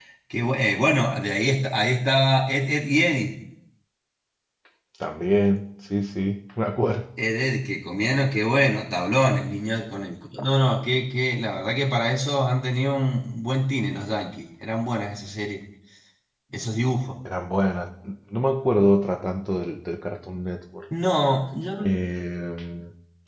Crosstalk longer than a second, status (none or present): none